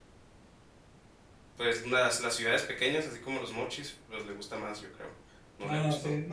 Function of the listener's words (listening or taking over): taking over